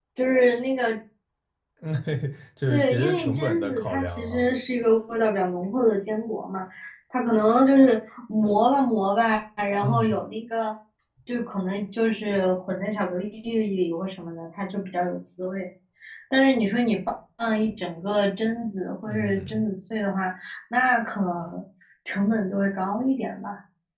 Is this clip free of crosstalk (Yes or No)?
No